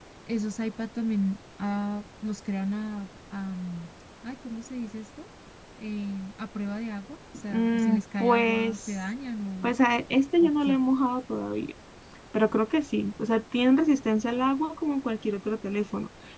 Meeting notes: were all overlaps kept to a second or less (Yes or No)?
No